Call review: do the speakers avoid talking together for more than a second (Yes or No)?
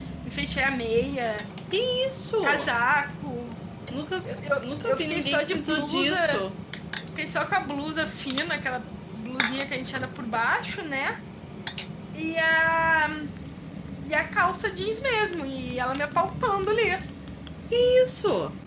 No